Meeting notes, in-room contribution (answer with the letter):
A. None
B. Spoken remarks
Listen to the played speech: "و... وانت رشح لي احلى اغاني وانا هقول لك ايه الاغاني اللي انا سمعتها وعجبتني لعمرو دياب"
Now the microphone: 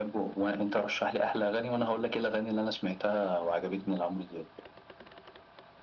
A